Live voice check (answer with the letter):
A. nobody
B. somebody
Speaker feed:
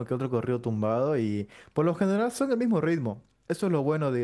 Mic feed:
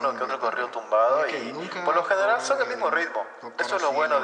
B